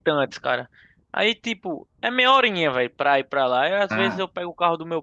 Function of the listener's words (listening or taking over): listening